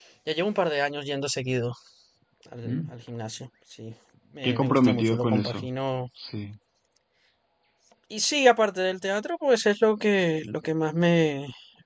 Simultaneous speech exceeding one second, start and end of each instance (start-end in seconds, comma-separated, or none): 4.4-5.7